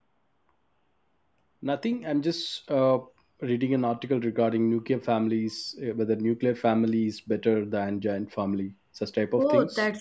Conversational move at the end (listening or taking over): taking over